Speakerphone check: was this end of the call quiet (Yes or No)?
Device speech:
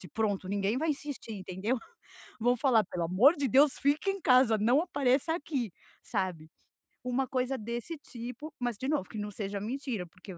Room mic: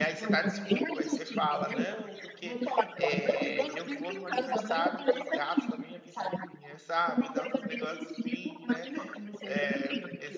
No